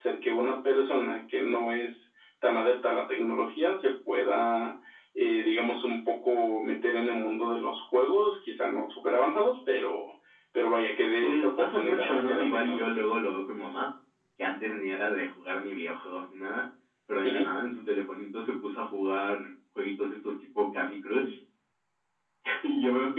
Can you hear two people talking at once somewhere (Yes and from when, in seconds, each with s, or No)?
Yes, from 11.2 s